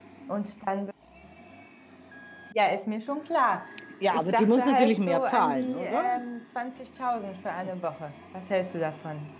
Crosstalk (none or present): present